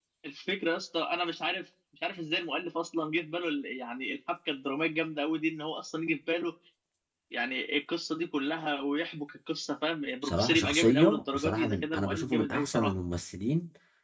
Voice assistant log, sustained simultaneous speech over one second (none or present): present